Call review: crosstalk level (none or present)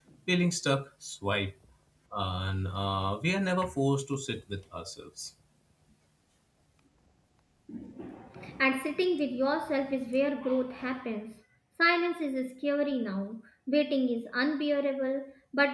none